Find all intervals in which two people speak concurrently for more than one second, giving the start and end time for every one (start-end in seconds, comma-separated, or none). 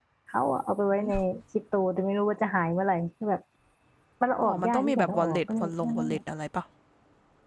4.4-6.2